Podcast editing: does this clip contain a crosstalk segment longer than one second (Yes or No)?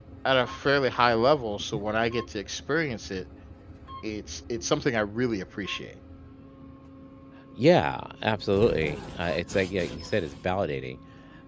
No